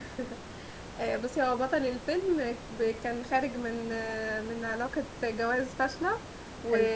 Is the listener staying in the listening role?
Yes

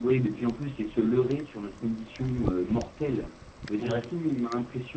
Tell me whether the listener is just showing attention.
Yes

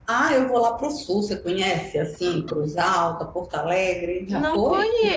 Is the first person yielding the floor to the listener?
Yes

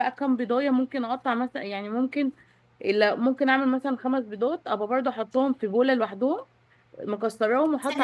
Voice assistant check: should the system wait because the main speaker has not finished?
Yes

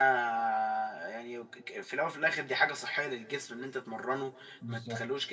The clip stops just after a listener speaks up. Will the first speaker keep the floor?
Yes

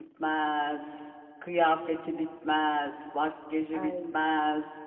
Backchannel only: Yes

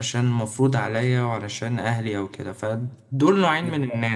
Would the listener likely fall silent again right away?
Yes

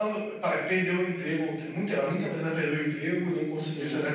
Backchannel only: Yes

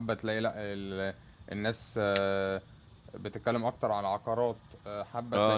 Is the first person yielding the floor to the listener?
Yes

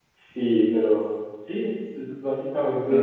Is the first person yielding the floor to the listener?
No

